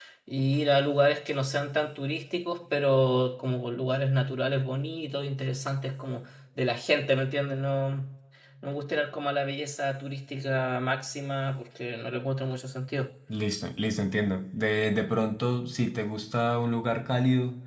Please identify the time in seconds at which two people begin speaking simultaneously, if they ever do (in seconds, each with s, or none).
none